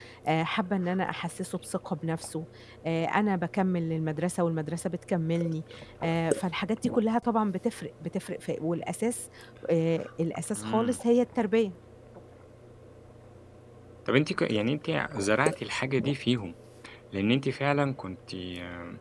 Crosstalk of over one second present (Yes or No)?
No